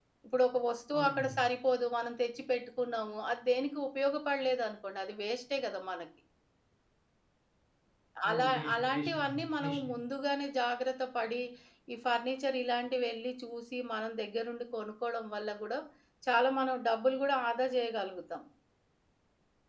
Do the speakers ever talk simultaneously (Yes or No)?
Yes